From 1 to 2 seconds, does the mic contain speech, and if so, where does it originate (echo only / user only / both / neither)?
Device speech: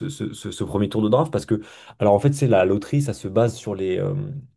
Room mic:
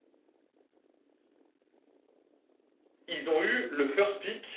neither